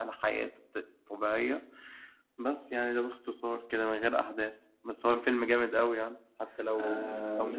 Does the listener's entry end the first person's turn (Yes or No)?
Yes